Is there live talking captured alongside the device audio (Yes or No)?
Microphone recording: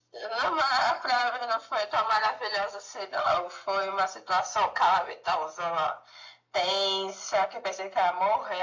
No